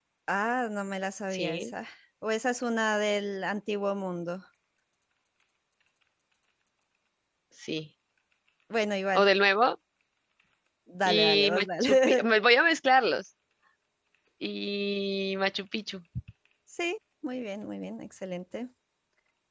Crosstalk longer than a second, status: present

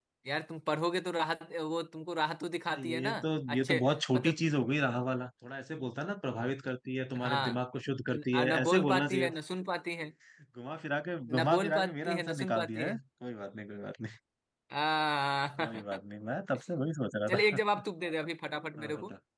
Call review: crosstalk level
present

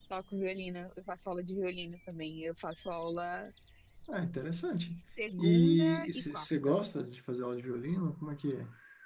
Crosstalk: present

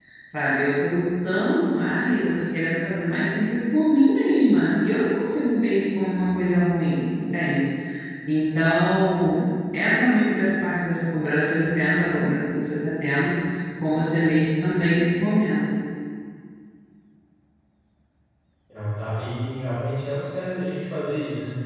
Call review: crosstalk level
none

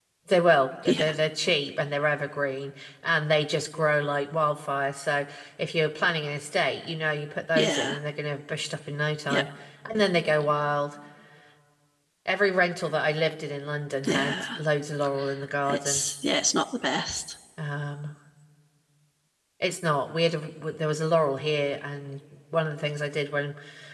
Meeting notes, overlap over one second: none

